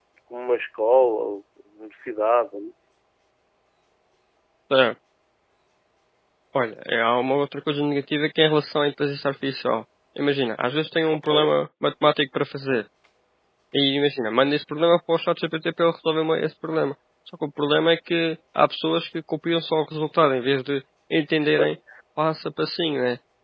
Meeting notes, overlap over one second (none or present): none